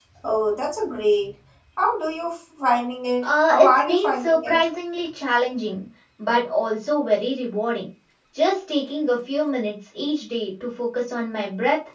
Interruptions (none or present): present